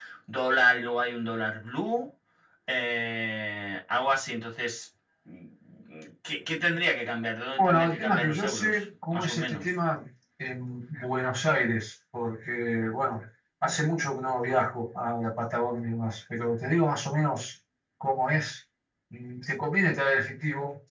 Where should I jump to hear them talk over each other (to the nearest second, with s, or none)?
8 s